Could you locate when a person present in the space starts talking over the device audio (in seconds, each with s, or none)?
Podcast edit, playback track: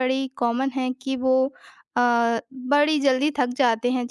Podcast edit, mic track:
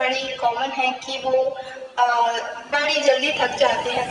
none